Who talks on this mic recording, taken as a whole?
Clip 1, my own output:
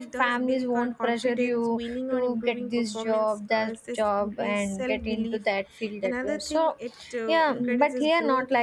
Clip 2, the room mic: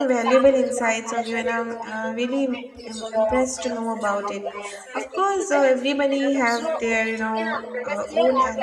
both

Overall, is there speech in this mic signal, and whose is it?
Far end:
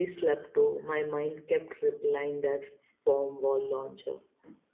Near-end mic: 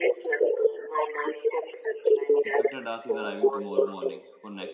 both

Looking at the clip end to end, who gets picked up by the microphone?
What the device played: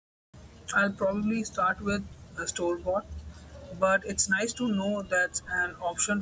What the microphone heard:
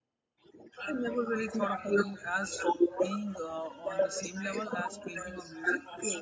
both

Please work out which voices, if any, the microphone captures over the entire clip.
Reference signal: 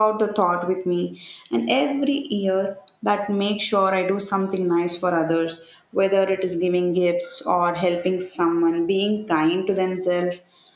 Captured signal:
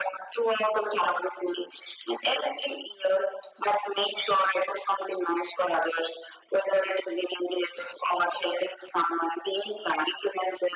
echo only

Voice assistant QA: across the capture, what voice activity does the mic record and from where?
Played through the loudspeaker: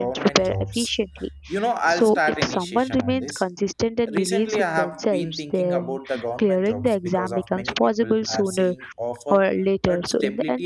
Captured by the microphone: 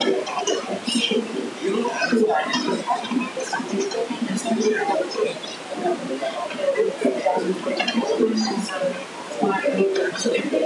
echo only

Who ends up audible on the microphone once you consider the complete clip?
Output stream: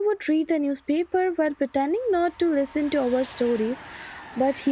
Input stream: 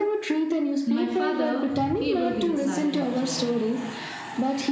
both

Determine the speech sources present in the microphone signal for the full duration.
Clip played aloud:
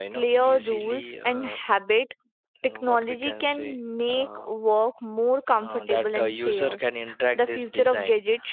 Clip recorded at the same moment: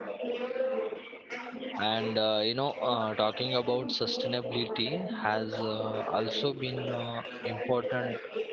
both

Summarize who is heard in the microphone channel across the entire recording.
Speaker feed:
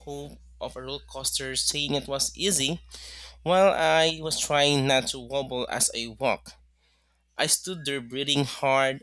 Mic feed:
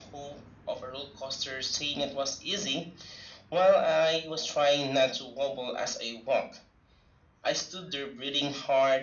echo only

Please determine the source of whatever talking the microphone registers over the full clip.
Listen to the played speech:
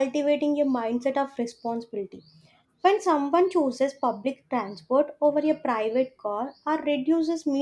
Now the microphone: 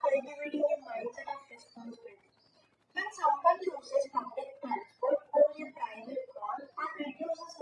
echo only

